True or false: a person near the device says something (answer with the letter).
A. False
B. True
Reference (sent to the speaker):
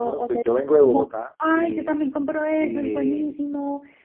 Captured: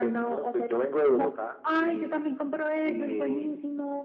A